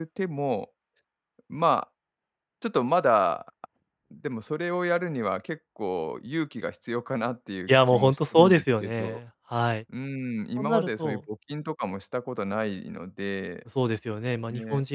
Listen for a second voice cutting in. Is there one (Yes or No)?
Yes